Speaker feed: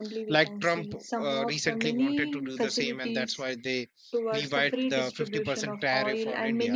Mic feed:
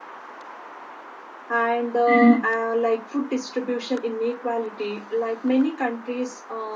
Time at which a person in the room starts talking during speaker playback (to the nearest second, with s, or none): 2 s